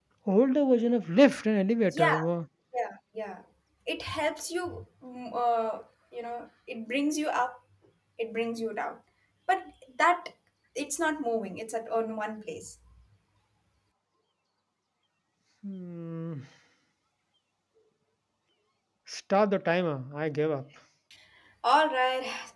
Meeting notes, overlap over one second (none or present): none